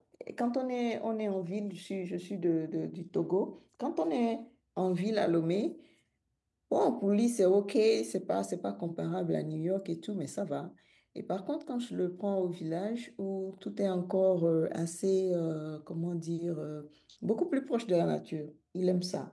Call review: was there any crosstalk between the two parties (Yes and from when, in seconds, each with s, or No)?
No